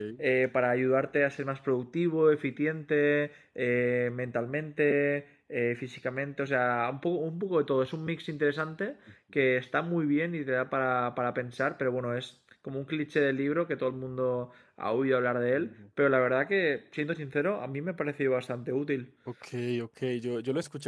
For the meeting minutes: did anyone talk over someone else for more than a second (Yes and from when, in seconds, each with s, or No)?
No